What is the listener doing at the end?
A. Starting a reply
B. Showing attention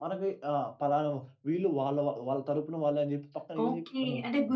A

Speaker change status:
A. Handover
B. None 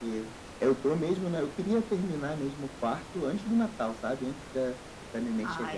B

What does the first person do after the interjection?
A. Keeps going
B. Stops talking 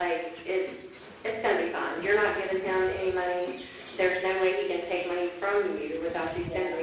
A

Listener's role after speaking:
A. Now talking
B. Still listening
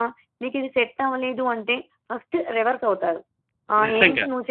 B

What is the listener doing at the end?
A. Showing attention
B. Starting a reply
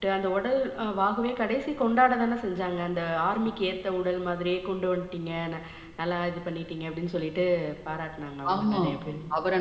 B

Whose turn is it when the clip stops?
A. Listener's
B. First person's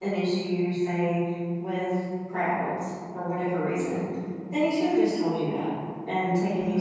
B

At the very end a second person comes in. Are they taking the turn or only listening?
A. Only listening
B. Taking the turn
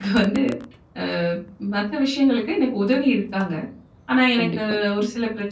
A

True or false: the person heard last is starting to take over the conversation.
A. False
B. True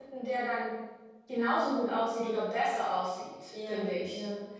B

